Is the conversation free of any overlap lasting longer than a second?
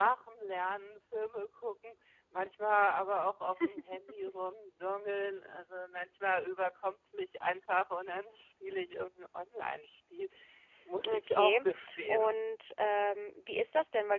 No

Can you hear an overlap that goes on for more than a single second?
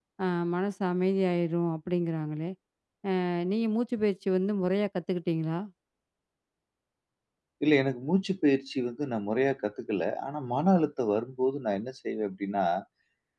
No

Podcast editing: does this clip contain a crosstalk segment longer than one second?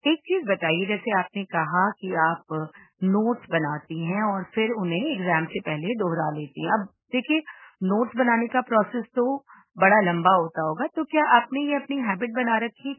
No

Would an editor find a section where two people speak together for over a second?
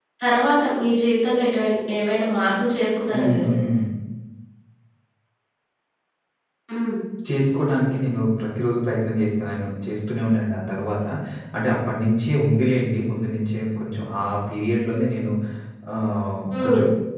No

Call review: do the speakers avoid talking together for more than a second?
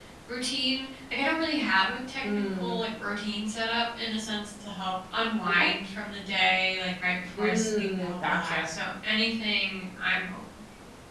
No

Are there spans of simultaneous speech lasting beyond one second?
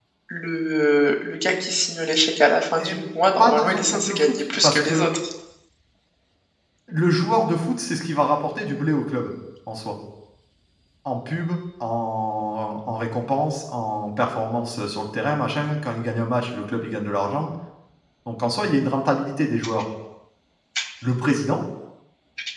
Yes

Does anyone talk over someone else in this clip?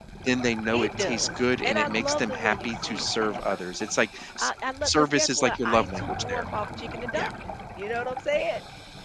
Yes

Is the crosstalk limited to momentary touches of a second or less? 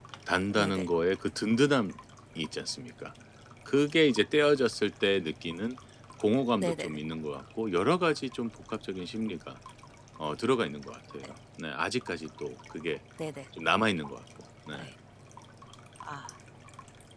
Yes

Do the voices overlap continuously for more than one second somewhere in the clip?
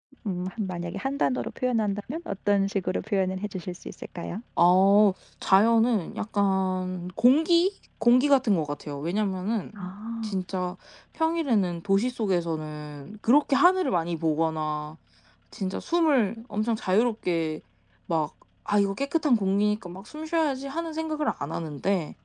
No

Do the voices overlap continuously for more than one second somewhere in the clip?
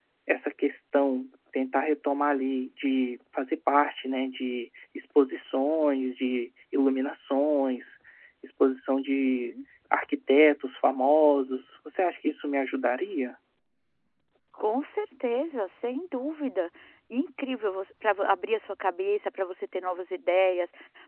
No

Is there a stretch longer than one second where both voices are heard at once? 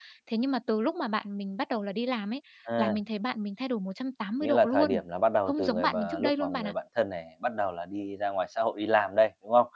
Yes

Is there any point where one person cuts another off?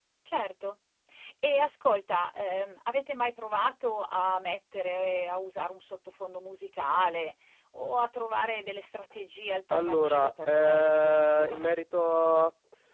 Yes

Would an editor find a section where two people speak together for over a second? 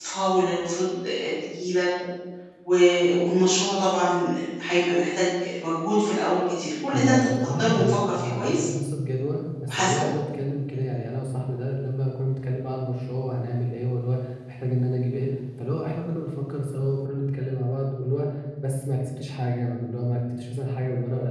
Yes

